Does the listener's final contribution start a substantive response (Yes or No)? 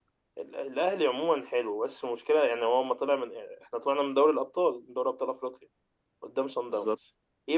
No